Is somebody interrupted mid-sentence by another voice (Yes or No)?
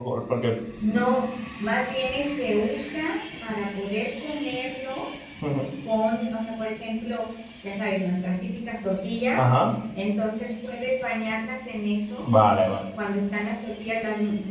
No